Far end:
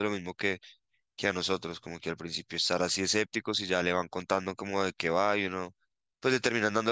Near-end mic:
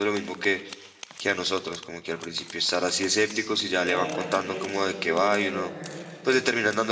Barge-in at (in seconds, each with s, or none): 3.2 s